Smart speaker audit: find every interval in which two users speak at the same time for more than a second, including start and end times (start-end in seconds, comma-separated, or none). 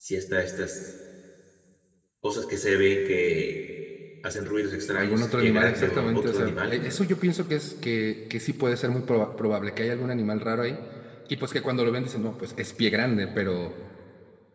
4.9-6.9